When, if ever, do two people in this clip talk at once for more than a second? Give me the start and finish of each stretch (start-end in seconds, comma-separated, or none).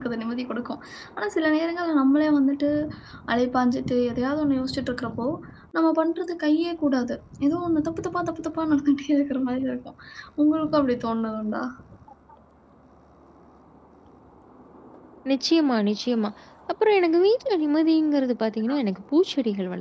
none